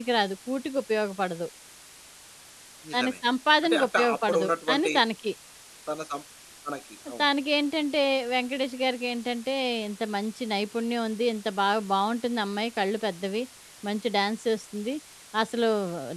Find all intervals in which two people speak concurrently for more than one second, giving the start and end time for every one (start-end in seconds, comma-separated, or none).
3.6-4.9